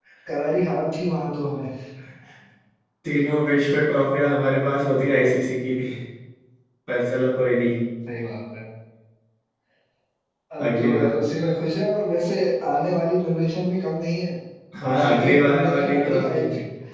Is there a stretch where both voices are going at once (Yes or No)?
Yes